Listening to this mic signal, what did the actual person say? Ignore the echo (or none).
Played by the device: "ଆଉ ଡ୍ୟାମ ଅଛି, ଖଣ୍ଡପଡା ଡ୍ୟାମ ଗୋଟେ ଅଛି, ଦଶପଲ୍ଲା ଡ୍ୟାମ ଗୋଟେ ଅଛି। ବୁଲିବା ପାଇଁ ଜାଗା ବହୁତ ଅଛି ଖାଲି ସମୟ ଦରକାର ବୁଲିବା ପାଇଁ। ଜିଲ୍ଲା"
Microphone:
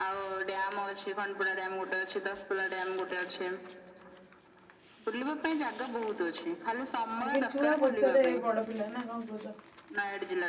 ଆଗେ ଛୁଆ ପଛରେ ବଡ ପିଲା ନା କ'ଣ କହୁଛ?